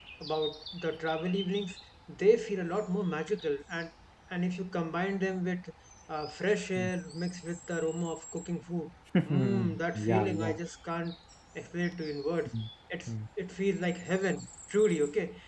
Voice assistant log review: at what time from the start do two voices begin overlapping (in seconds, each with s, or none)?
9.3 s